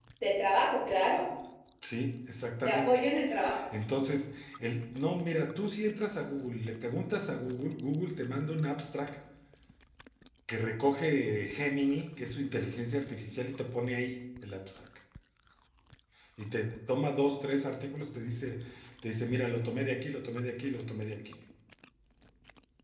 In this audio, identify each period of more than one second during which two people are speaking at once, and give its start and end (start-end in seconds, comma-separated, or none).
none